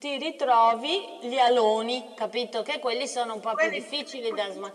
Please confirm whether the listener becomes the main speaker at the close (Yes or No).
Yes